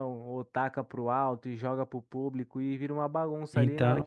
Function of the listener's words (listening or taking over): listening